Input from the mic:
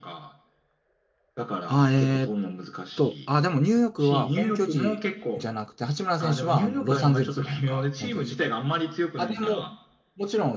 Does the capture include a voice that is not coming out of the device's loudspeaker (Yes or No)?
Yes